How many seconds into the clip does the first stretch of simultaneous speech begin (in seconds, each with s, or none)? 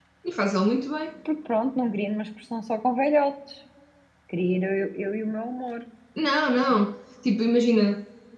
none